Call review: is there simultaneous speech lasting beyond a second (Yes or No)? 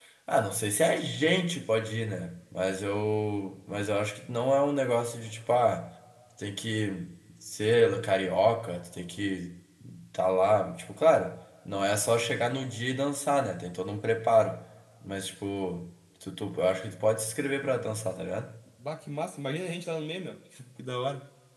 No